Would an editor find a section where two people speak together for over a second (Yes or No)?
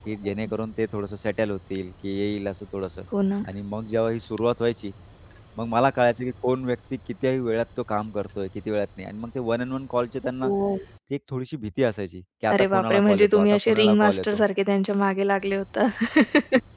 Yes